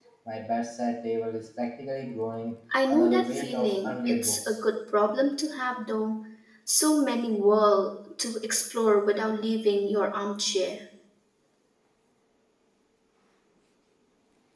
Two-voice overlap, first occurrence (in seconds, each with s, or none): 2.7 s